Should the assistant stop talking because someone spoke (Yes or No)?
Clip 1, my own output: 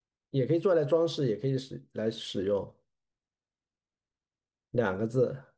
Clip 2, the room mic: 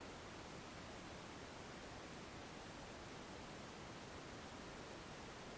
No